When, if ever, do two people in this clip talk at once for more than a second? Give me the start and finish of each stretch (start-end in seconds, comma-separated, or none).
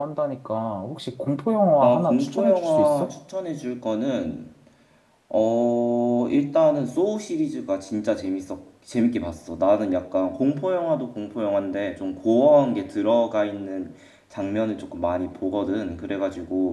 1.8-3.1